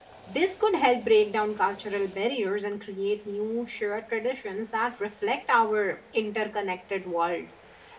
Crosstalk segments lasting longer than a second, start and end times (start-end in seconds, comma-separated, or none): none